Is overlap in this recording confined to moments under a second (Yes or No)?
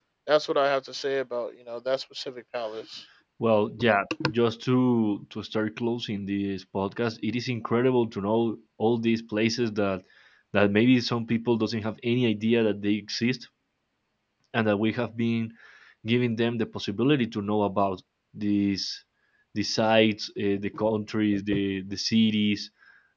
Yes